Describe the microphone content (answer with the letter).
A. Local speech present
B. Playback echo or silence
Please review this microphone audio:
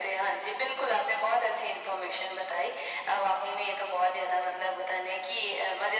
B